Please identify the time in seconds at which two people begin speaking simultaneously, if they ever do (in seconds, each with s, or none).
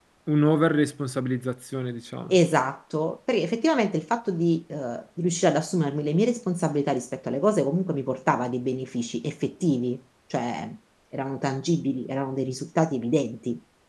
none